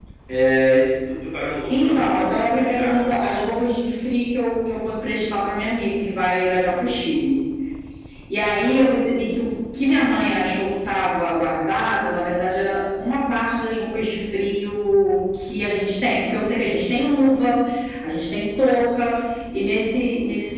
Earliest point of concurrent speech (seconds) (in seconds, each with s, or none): 1.7 s